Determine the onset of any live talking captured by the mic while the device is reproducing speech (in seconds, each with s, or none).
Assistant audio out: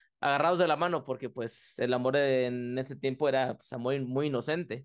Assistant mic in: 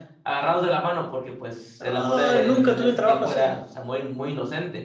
1.8 s